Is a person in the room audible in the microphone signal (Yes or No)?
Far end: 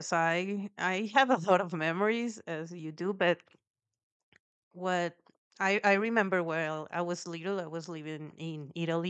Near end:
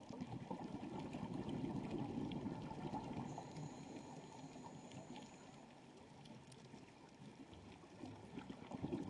No